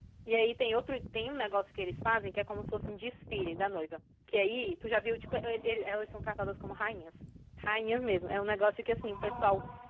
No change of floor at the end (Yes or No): Yes